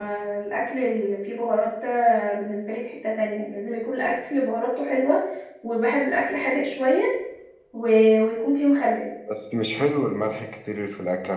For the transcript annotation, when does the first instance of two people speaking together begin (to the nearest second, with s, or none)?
none